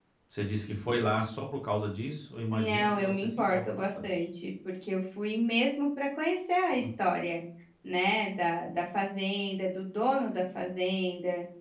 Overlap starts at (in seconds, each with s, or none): 2.5 s